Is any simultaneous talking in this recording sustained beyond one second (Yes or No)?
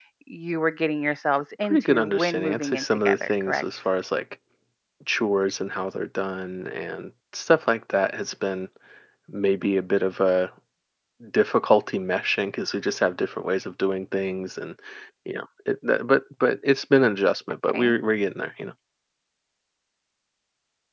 Yes